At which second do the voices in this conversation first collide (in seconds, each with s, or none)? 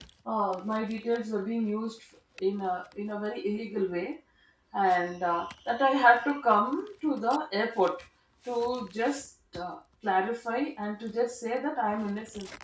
none